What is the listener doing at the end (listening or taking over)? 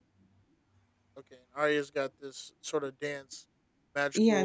taking over